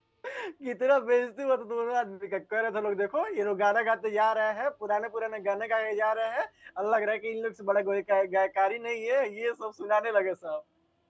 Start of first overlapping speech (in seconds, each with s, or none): none